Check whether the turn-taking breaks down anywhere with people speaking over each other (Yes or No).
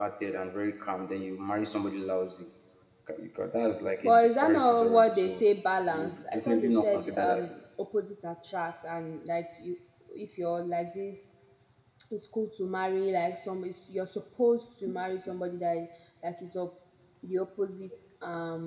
Yes